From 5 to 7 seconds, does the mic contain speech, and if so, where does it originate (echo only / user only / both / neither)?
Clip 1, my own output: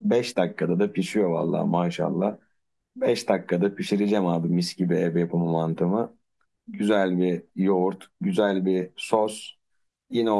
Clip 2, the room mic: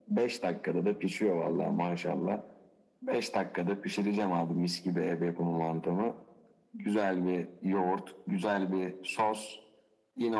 echo only